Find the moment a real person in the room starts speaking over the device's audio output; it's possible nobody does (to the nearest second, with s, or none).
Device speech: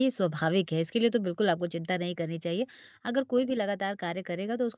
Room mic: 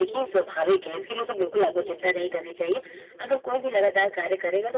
none